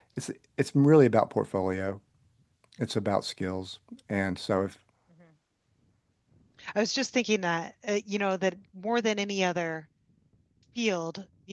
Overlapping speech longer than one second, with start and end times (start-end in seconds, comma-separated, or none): none